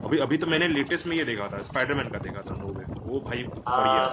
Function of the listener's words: taking over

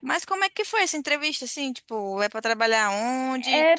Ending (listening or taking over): taking over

